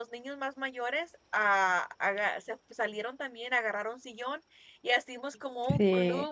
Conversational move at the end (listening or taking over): listening